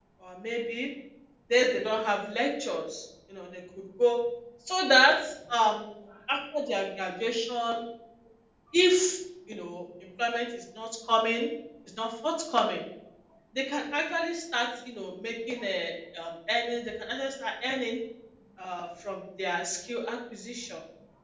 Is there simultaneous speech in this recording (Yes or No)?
No